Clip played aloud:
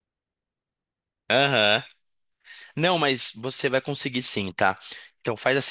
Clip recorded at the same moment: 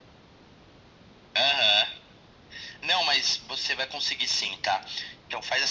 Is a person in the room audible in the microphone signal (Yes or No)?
No